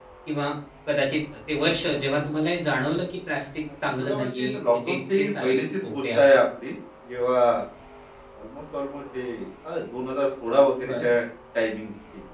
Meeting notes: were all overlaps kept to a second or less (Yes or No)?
No